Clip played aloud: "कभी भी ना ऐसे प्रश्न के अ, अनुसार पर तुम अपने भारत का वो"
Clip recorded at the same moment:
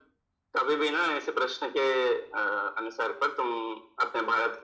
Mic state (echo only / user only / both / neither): echo only